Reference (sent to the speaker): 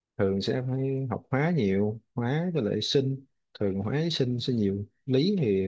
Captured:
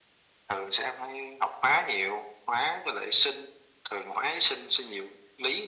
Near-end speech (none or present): none